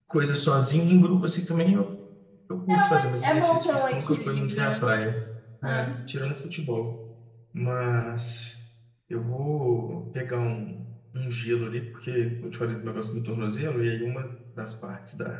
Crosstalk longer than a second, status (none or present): present